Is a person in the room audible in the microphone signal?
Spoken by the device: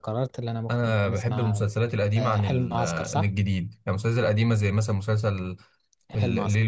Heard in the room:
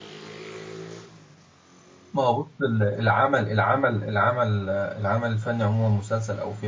Yes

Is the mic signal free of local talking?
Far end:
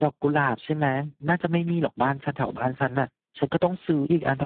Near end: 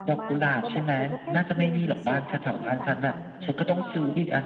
No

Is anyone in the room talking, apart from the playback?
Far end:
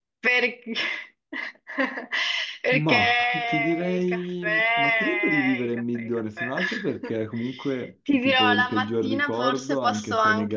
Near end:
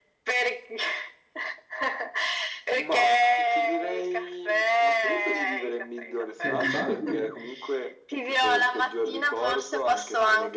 Yes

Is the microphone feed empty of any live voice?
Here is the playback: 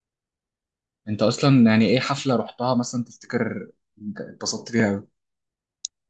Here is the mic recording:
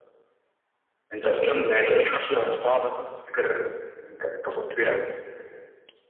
Yes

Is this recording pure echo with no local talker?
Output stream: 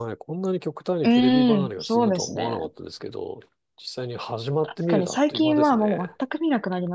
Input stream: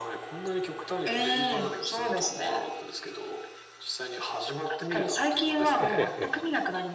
No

